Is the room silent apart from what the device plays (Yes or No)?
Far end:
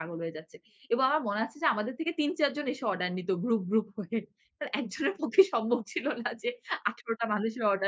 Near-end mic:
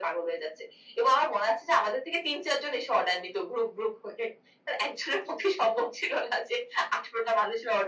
Yes